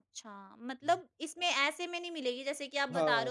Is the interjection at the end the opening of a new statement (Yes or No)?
Yes